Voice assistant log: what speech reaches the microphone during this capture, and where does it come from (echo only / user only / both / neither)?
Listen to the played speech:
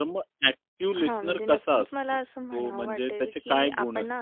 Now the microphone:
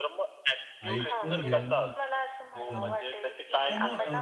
both